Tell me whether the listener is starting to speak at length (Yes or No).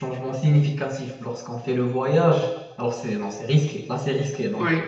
No